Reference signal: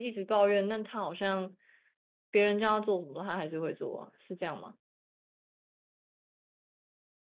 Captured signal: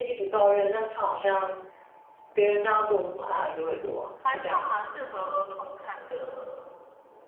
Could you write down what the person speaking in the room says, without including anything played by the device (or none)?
还算蛮适合儿童看的